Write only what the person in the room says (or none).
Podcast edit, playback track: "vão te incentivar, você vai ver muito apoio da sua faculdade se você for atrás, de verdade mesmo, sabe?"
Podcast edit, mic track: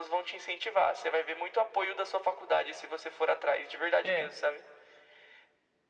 É,